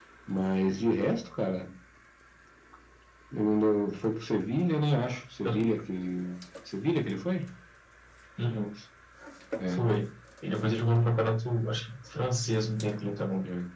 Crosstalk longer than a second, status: none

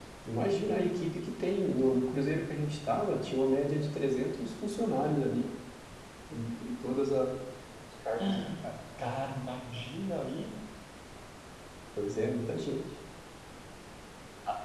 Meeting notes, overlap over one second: none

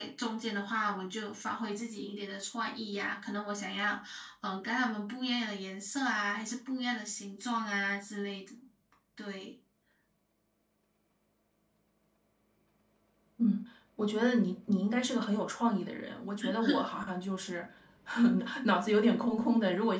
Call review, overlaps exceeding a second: none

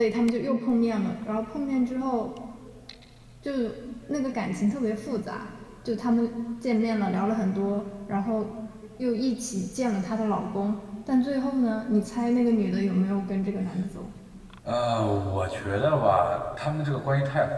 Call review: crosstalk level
none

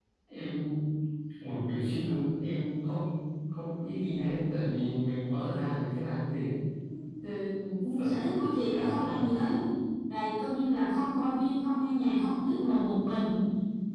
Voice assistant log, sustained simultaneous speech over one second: present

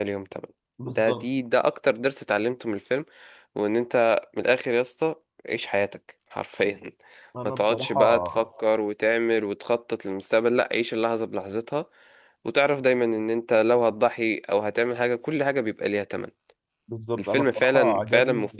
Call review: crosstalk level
present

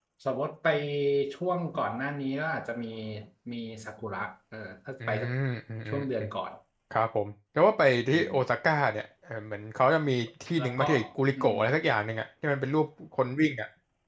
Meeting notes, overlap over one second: none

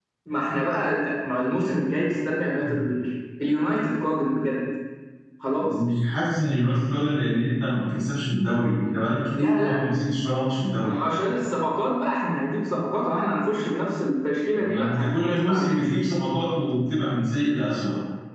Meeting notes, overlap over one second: present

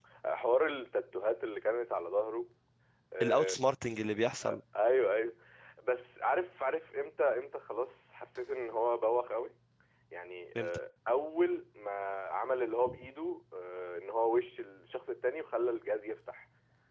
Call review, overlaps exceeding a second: none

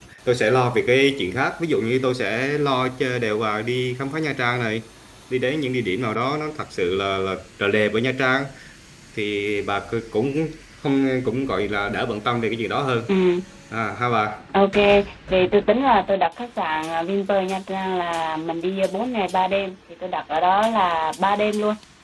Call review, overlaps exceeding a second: none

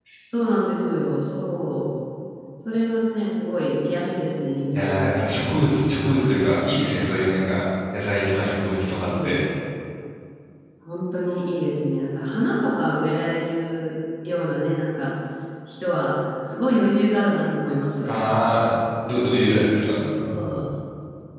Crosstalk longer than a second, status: none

